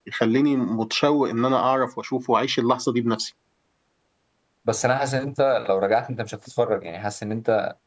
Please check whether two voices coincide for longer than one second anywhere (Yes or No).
No